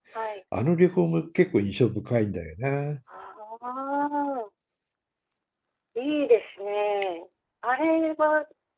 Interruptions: none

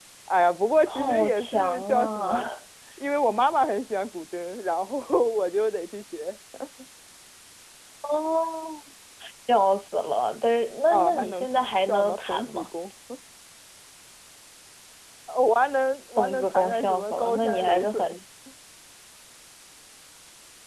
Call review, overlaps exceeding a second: present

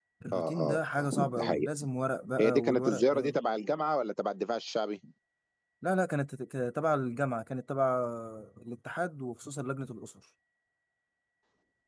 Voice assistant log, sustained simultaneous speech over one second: present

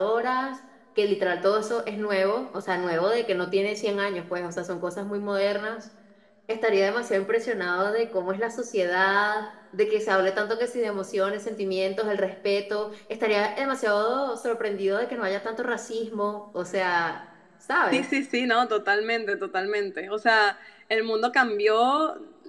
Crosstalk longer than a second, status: none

